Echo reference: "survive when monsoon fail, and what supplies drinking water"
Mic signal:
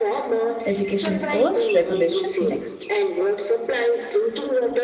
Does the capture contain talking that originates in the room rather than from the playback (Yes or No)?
Yes